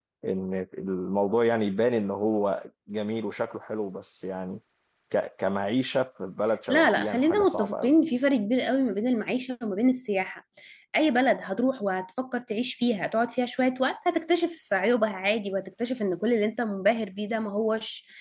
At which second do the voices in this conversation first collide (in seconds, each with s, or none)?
6.7 s